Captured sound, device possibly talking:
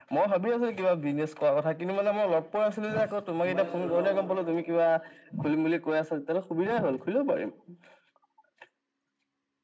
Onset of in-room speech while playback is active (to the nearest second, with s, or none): 3 s